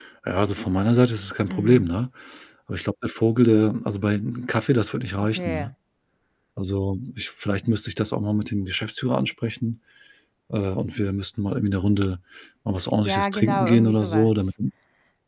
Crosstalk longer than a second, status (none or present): present